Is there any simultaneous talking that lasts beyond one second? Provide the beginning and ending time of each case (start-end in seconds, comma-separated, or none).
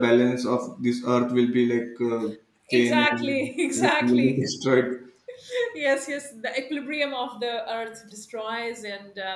2.7-4.4